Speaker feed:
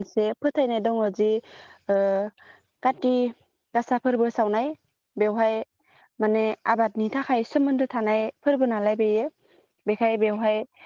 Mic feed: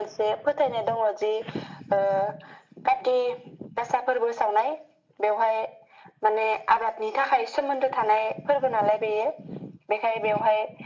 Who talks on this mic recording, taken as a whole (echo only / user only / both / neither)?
echo only